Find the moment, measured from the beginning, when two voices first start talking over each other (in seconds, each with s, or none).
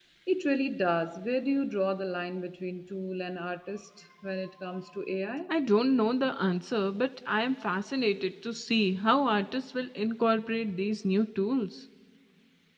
none